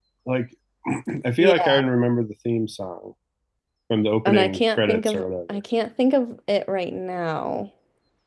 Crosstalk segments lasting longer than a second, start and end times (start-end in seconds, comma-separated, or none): 4.2-5.6